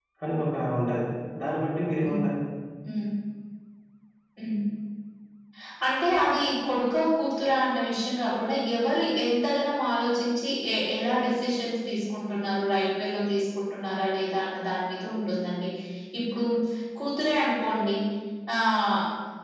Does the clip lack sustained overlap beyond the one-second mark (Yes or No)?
Yes